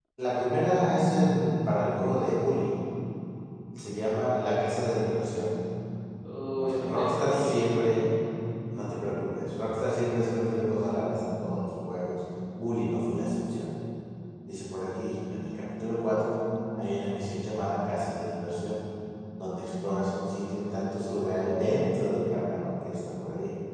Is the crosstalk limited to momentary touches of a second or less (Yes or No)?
No